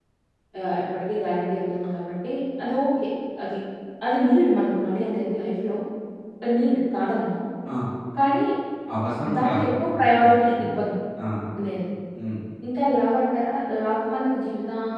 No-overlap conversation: No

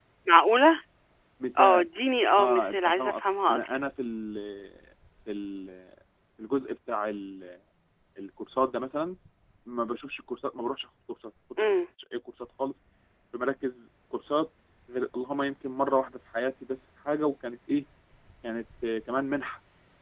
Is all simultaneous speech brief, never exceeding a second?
No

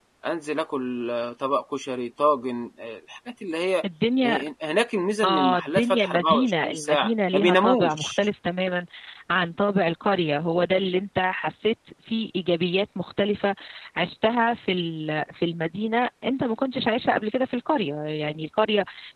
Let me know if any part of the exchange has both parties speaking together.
Yes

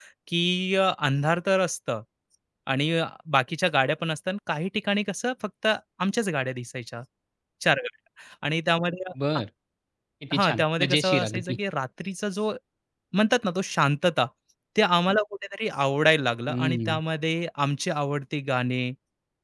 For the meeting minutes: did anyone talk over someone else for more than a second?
Yes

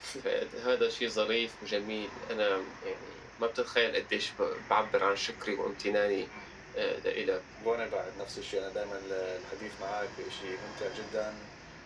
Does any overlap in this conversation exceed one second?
No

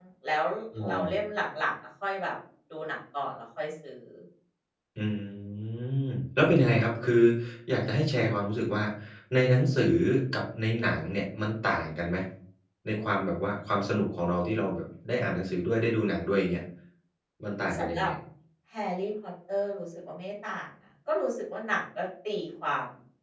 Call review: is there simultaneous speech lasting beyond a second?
No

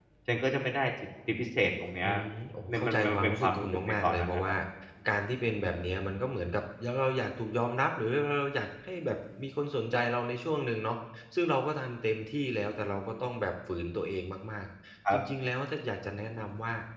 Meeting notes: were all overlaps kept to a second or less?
No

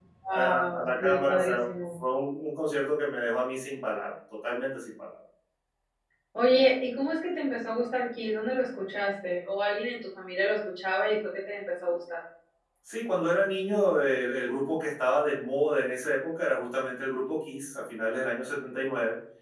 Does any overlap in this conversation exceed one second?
Yes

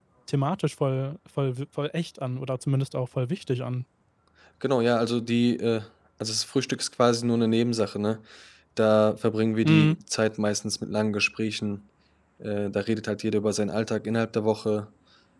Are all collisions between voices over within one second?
Yes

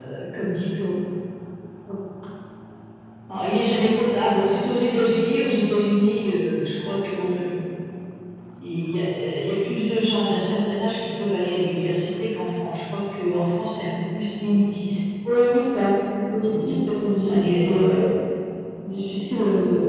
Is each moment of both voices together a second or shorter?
No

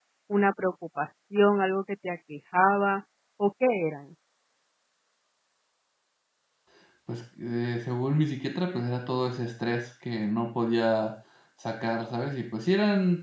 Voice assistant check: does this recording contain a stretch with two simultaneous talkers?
No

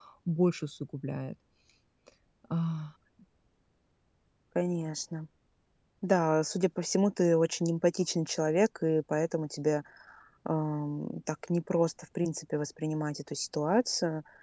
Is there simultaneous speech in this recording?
No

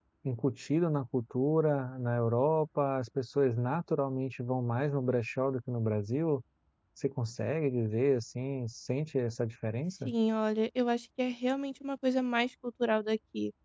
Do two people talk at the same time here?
No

